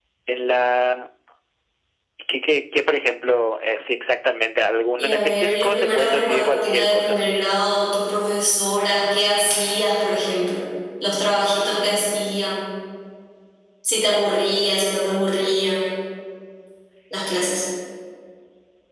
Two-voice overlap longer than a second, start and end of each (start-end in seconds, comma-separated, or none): 5.0-7.2